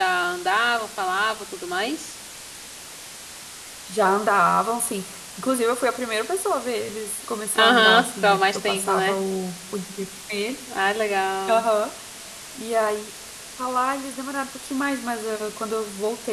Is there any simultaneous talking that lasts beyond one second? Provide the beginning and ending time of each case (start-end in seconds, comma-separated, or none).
7.5-9.2